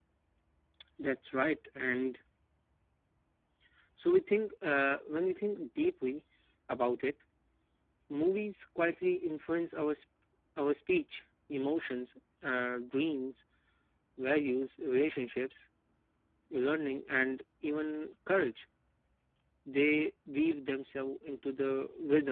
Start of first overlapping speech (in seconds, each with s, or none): none